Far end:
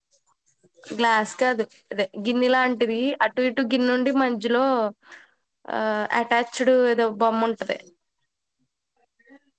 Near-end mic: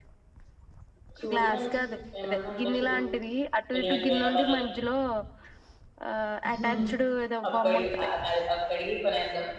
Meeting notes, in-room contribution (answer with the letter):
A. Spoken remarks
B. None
A